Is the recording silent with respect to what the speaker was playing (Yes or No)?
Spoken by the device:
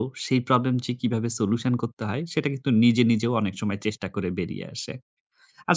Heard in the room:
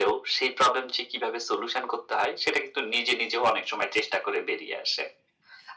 No